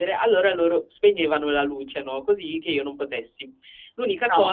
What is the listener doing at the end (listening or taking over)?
listening